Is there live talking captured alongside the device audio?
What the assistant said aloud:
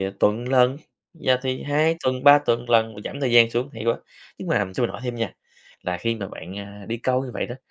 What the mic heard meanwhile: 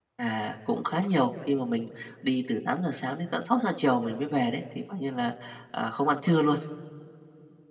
Yes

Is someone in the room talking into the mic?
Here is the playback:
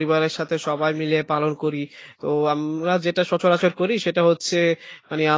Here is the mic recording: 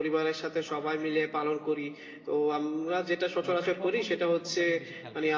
Yes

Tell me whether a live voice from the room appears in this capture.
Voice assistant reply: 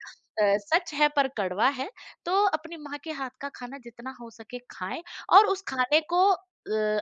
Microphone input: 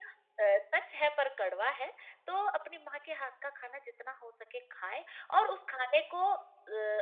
No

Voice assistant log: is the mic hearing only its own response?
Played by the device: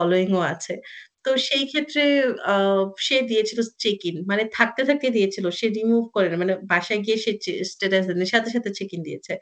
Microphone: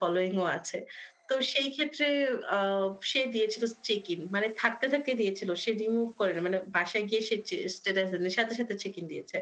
Yes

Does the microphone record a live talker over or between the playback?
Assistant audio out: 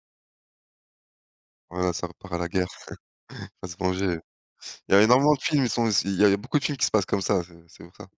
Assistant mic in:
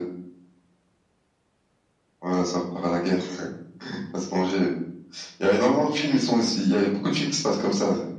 No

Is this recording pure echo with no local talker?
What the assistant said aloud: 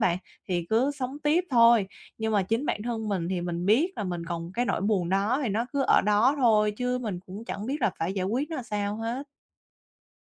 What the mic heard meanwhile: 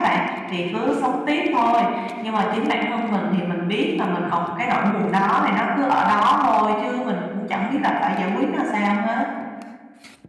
Yes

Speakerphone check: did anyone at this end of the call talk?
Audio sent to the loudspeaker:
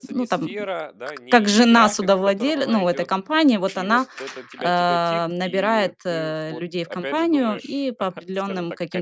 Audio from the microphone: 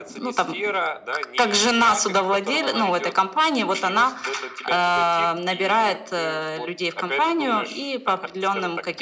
No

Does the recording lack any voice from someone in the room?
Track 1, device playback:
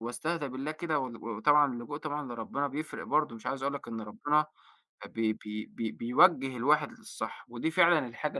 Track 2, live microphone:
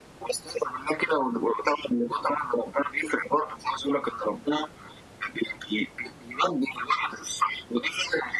Yes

